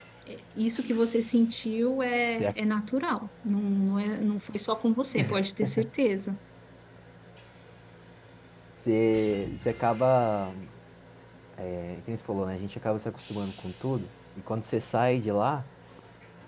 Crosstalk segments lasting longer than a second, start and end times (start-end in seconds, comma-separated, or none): none